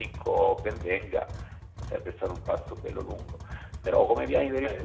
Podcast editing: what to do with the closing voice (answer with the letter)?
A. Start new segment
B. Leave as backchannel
B